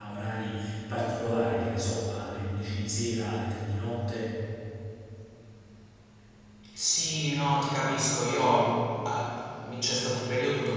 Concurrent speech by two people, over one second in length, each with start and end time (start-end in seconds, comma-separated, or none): none